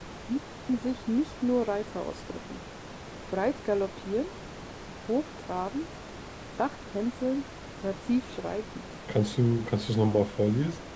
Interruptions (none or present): none